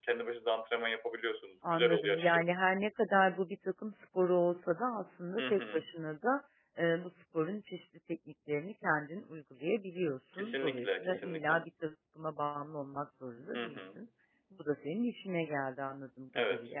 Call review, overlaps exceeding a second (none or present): present